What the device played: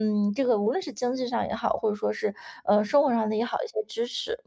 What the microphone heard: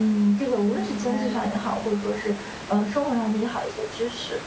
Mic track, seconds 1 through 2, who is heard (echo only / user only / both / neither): both